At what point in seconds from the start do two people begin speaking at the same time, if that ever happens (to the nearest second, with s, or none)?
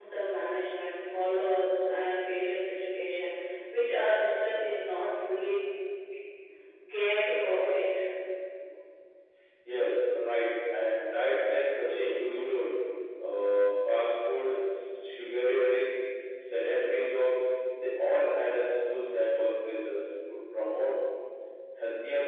none